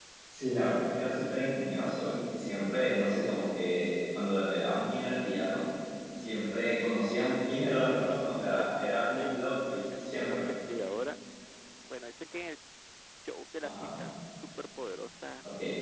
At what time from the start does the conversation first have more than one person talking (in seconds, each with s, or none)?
7.7 s